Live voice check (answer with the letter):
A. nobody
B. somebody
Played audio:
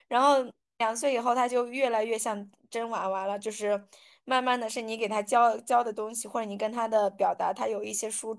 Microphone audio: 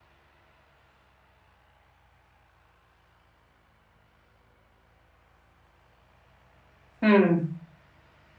B